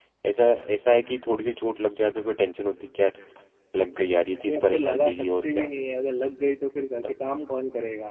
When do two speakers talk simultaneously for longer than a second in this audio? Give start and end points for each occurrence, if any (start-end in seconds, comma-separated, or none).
4.4-5.7